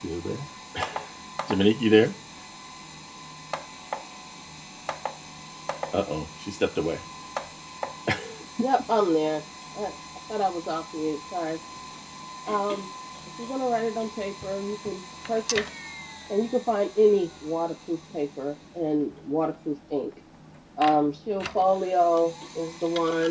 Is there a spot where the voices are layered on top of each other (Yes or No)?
No